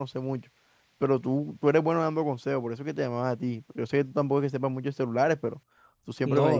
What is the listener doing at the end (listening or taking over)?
listening